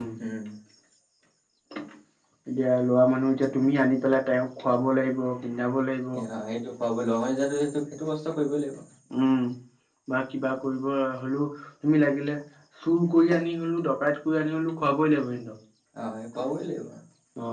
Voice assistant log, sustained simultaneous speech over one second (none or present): none